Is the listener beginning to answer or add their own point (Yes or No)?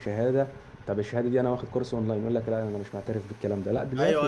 Yes